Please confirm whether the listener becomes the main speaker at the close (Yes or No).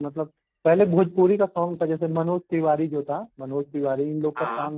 No